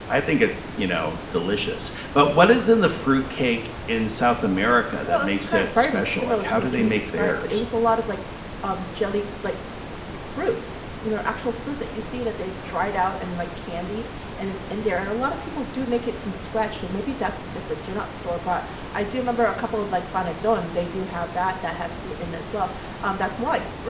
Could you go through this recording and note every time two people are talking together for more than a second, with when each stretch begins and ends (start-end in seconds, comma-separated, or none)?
5.0-7.6